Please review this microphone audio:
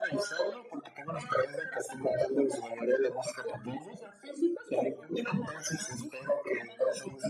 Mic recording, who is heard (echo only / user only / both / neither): echo only